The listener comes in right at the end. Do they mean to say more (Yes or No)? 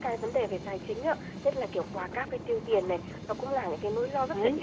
No